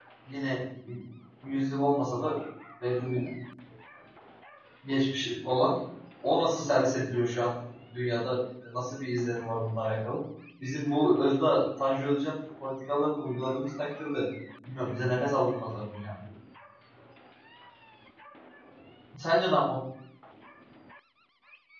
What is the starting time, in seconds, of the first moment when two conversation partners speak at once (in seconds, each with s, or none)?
none